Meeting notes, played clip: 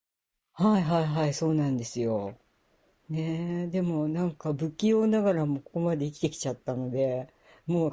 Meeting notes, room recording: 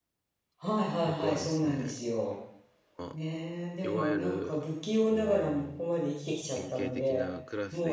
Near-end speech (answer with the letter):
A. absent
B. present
B